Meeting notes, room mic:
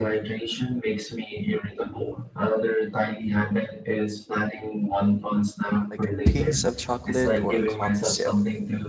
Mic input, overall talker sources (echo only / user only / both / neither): both